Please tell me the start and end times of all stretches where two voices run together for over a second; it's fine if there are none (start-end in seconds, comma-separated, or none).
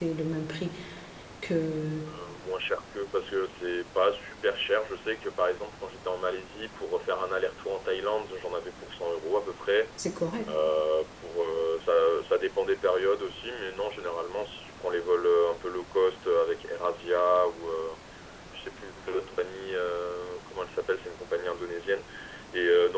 none